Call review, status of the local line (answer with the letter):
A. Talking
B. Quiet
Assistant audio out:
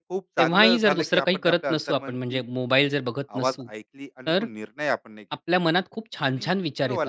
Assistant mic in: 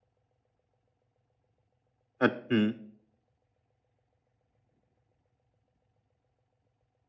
A